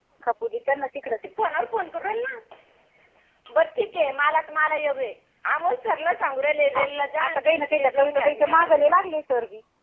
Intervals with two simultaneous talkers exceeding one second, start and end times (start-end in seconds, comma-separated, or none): 7.3-9.0